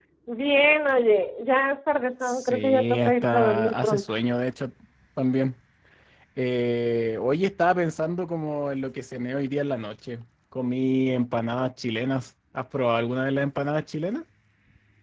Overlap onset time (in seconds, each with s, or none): 2.2 s